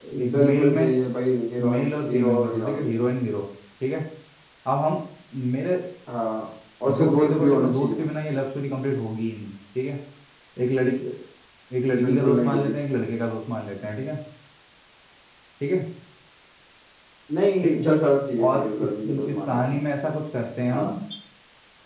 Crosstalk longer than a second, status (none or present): present